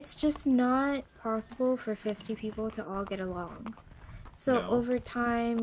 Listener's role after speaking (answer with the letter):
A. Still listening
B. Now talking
A